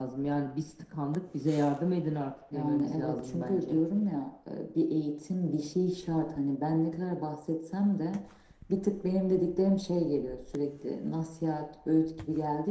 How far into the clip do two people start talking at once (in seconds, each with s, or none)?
2.5 s